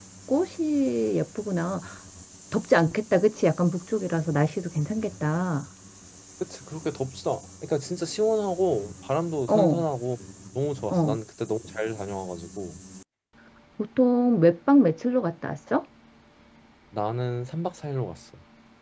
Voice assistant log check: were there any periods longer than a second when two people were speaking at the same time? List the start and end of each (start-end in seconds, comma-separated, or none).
none